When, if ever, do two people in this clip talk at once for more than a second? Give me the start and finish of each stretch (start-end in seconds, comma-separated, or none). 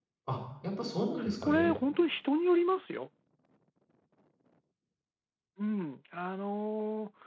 none